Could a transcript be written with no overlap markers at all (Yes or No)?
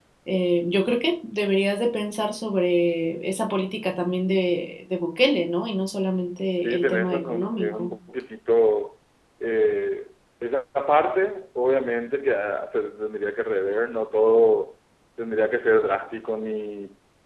No